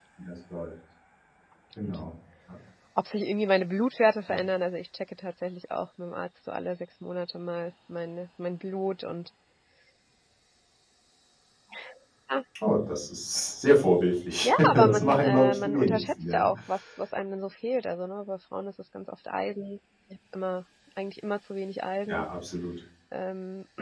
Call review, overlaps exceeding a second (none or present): present